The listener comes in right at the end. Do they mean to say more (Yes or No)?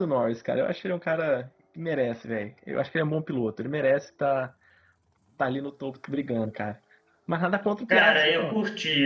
Yes